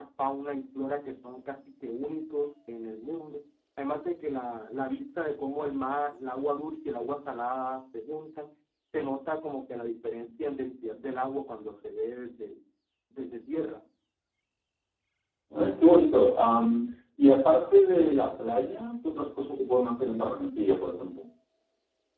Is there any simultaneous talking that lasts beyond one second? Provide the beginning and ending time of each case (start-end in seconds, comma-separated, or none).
none